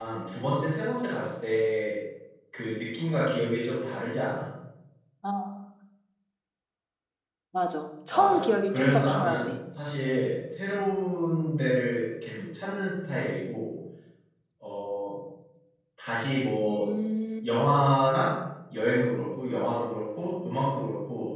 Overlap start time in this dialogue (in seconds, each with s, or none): 8.1 s